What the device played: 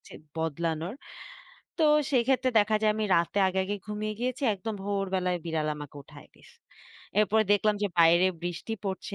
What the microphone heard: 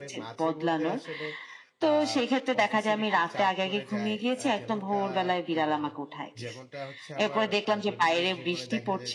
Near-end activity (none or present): present